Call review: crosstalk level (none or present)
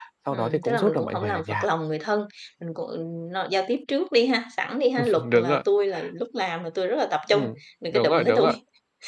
present